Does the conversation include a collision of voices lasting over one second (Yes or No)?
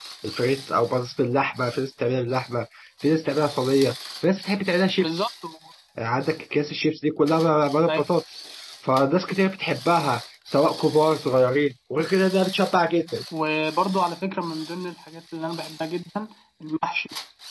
No